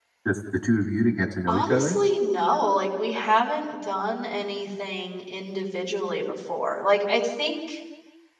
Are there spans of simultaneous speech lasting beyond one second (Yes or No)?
No